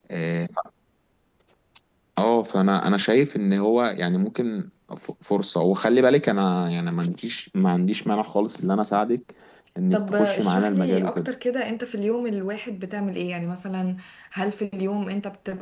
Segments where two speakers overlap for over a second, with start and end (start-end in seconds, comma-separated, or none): 9.9-11.3